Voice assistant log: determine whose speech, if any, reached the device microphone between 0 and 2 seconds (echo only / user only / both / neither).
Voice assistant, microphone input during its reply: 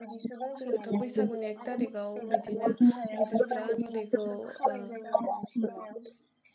both